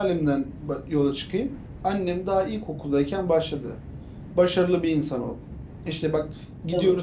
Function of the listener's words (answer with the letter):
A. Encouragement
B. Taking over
A